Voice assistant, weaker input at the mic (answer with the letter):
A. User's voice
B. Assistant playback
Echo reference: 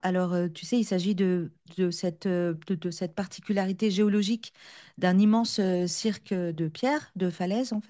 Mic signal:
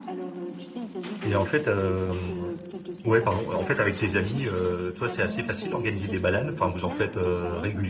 B